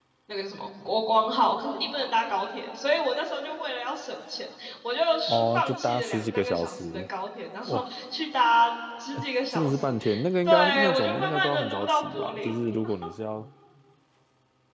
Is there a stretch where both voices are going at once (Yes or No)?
Yes